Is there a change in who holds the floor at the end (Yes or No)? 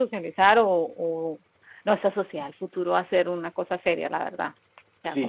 Yes